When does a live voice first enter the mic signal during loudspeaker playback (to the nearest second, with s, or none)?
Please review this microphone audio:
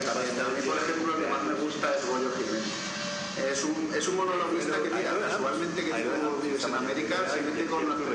none